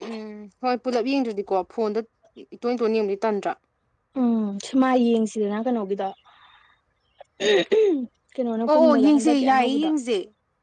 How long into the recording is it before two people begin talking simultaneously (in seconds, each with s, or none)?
8.7 s